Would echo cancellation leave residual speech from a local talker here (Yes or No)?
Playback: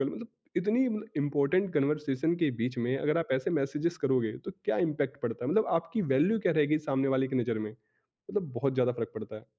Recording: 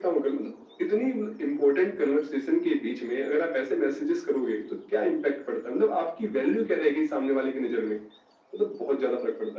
No